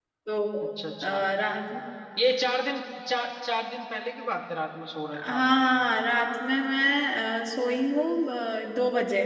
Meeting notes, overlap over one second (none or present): none